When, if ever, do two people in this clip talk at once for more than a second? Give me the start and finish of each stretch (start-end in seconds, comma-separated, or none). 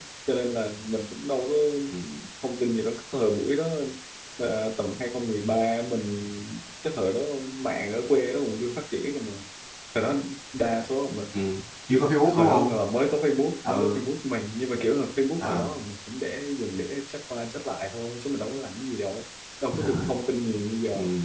none